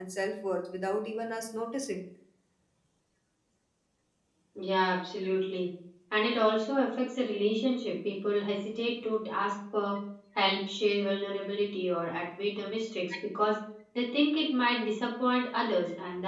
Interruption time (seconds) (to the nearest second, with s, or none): none